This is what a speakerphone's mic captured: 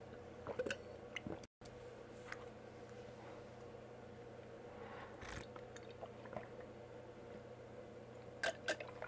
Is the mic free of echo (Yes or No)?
Yes